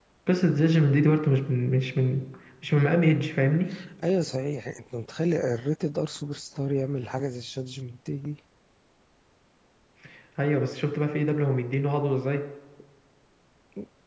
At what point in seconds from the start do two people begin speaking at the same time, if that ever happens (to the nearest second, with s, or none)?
none